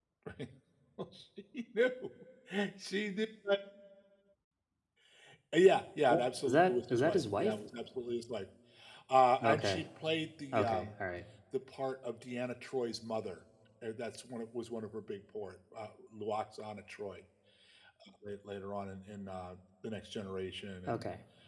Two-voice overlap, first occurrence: 6 s

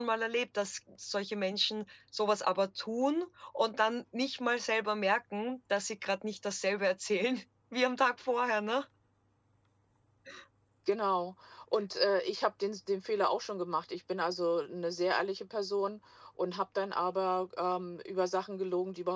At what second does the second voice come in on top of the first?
none

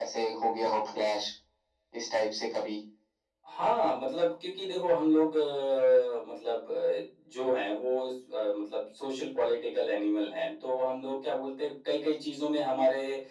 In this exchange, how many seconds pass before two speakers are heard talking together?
none

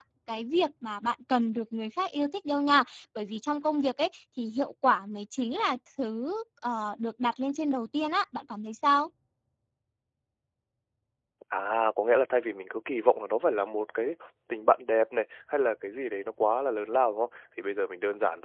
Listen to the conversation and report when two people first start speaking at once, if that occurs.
none

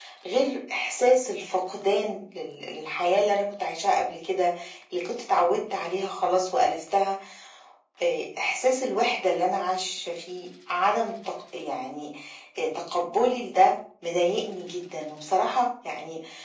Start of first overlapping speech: none

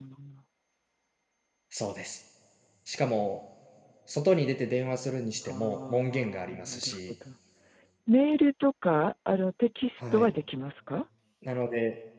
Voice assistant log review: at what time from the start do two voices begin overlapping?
5 s

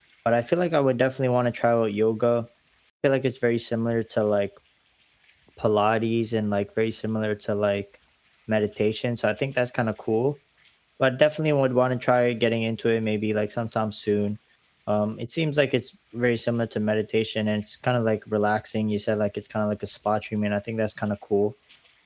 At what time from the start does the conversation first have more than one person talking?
none

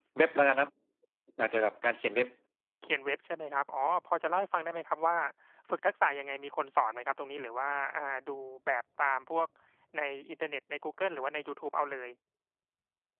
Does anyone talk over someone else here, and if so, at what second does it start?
none

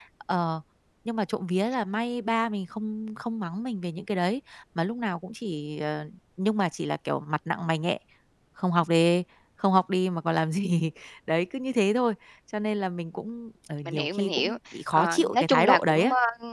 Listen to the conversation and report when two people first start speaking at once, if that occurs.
14 s

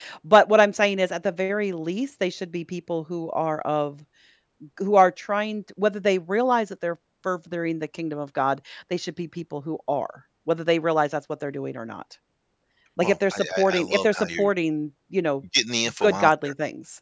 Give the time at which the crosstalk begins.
13 s

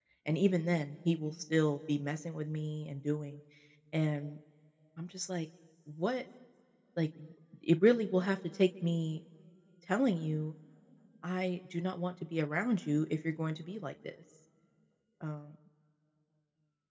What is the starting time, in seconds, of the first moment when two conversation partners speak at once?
none

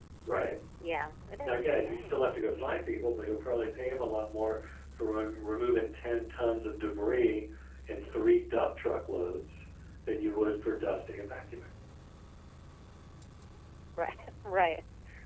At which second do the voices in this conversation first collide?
1 s

